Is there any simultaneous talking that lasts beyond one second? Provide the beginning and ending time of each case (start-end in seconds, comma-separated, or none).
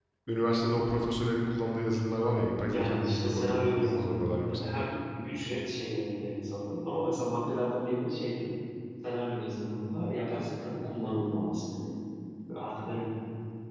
2.7-4.6